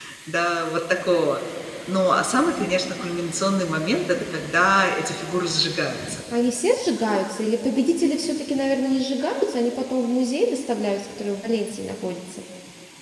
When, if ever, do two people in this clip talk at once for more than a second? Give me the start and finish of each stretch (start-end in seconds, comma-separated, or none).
none